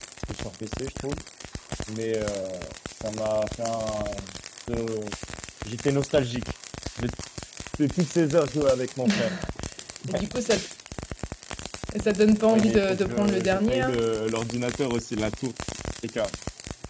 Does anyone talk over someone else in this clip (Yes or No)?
Yes